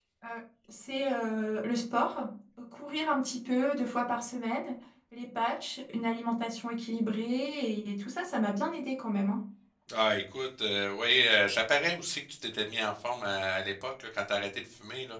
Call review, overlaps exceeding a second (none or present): none